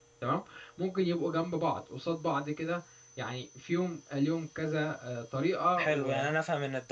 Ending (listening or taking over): taking over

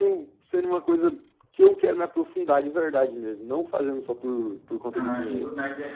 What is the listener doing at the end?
taking over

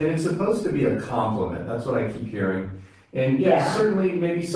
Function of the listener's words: listening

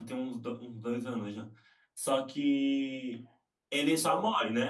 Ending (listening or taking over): listening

